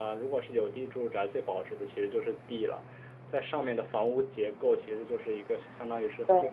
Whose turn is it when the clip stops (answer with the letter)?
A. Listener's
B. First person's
B